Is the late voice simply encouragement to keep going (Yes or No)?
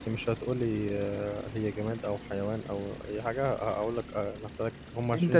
No